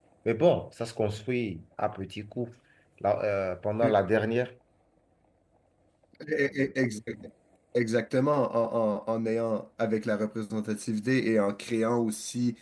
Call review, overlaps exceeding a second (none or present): none